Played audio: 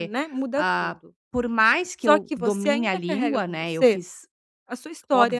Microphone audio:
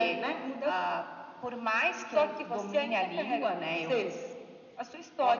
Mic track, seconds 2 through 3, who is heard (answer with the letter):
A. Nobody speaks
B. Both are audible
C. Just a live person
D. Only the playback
D